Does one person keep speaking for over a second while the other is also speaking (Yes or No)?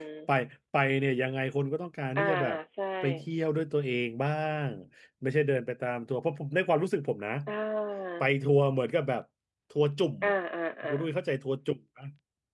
No